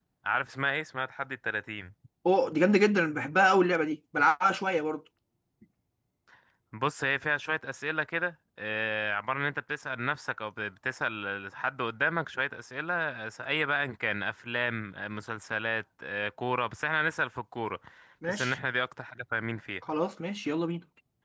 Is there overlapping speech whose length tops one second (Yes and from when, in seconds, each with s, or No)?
No